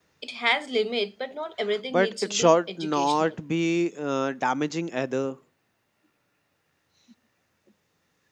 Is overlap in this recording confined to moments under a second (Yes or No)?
No